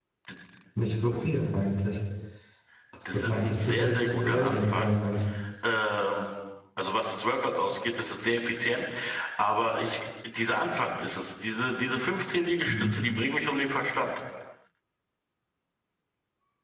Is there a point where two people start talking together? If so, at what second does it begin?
3.0 s

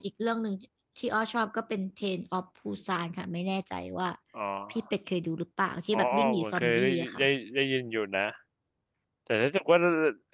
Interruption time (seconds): 5.9 s

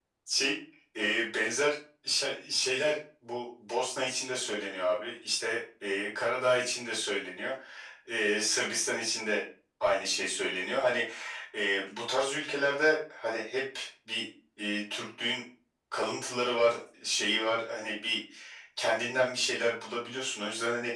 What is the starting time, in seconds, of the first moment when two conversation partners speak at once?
none

